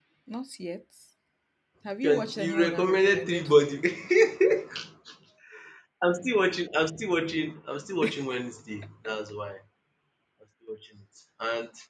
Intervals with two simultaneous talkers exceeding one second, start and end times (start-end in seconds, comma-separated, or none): 2.0-3.8